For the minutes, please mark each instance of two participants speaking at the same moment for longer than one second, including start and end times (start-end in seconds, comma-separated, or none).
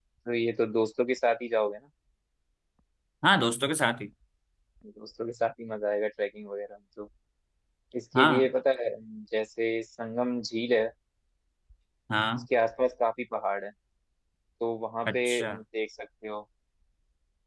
none